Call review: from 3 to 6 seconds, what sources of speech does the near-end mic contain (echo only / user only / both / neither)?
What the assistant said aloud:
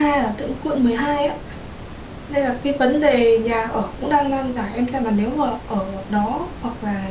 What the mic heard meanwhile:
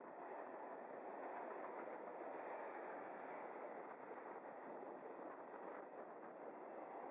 neither